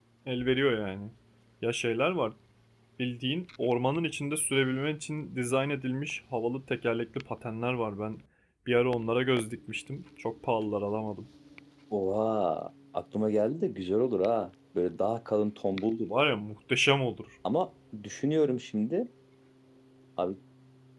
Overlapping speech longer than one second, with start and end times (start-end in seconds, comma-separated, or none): none